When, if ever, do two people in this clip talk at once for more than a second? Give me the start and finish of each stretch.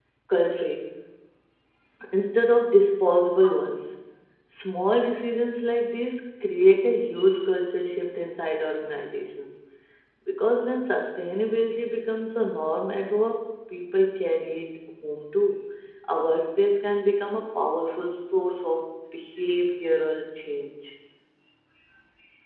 none

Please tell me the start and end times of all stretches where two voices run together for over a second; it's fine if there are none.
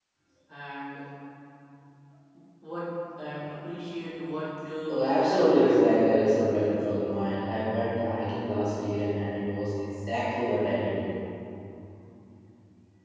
4.9-6.6

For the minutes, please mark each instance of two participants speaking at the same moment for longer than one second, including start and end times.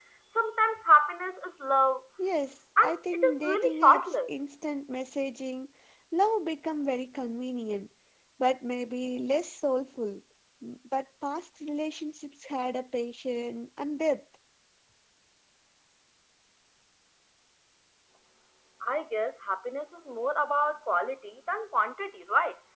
2.8-4.3

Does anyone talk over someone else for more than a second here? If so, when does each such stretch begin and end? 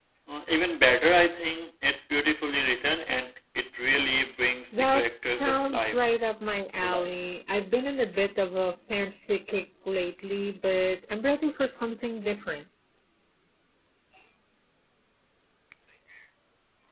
4.8-6.0

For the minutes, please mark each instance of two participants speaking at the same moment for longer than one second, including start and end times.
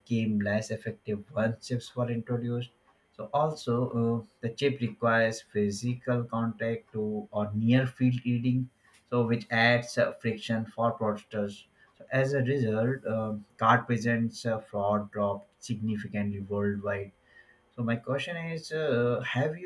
none

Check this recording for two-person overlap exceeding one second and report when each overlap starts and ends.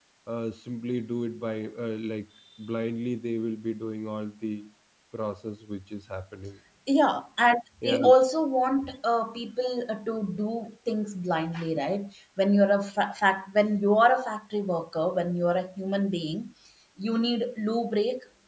none

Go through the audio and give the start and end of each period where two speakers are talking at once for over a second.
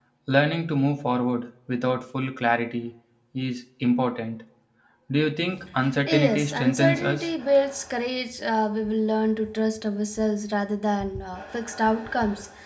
6.1-7.3

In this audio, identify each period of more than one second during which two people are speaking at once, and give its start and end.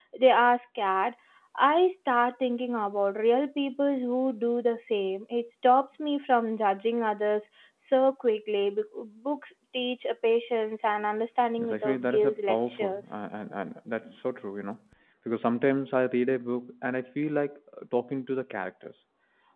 11.6-13.2

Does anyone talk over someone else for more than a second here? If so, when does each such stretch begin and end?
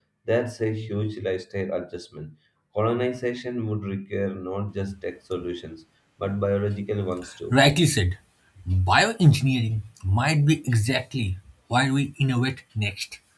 none

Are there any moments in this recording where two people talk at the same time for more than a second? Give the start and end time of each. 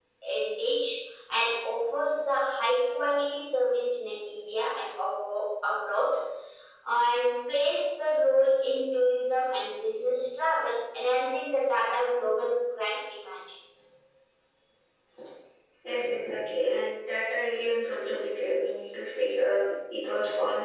none

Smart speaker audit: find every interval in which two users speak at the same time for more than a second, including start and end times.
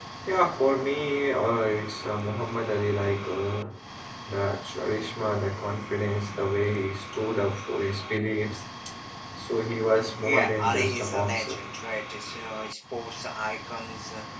10.2-11.6

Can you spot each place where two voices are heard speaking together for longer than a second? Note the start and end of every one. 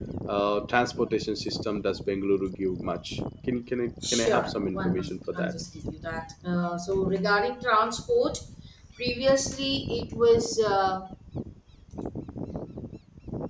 4.1-5.5

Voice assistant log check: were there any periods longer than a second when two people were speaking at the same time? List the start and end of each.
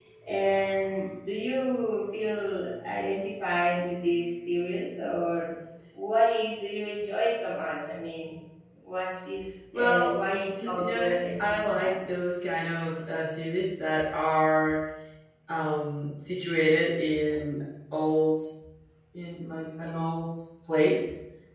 10.6-12.0

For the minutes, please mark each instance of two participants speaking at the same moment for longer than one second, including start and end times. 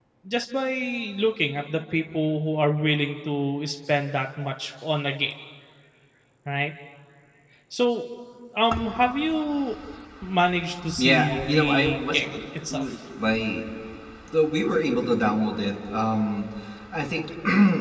11.0-12.2

